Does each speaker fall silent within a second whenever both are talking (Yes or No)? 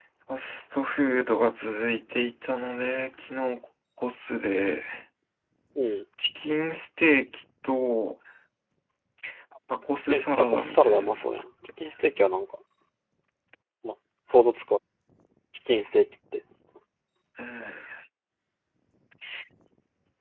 No